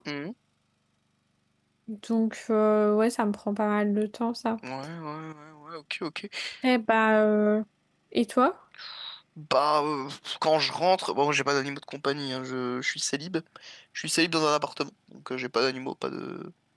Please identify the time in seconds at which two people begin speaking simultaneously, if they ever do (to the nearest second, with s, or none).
none